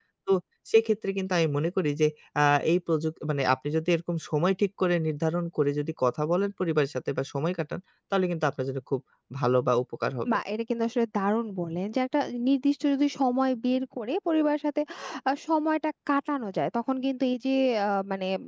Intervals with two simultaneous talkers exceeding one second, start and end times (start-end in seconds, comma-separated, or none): none